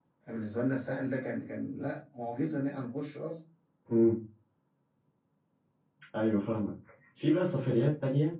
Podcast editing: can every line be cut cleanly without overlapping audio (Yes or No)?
Yes